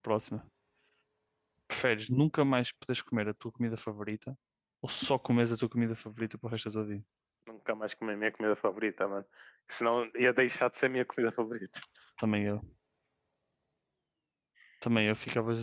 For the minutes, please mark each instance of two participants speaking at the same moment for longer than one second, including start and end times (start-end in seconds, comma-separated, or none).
none